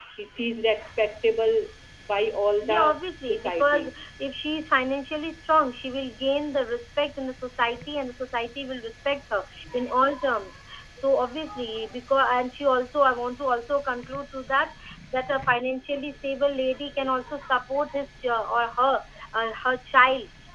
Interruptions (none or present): present